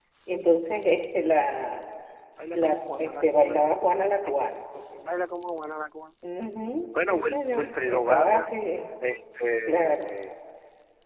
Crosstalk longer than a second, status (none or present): present